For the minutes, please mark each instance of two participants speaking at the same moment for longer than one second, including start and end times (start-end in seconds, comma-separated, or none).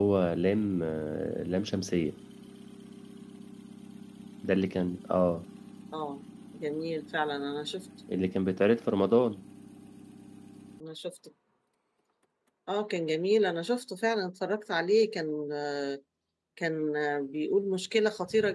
none